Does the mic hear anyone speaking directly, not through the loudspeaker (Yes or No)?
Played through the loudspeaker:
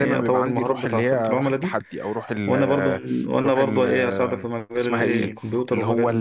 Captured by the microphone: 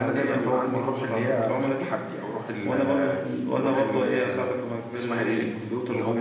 No